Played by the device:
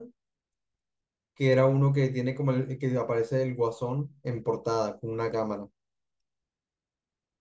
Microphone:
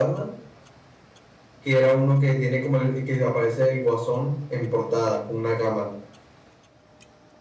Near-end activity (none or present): none